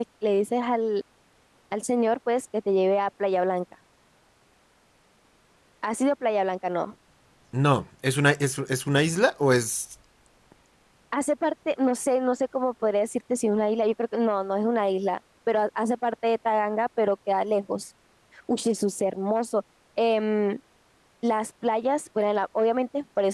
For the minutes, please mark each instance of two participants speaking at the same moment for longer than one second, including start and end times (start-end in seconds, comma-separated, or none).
none